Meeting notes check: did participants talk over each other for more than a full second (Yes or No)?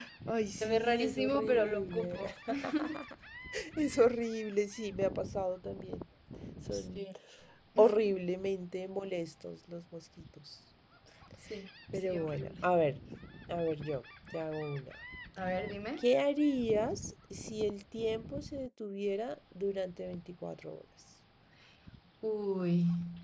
Yes